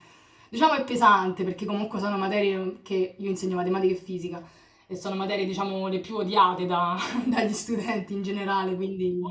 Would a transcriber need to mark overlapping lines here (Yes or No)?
No